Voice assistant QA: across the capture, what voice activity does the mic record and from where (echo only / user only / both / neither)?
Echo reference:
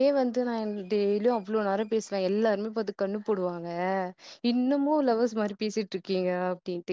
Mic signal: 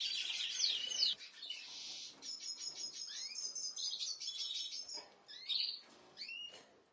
neither